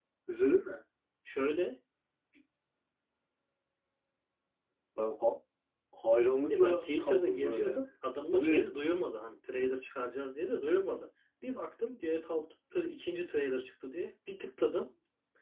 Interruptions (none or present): present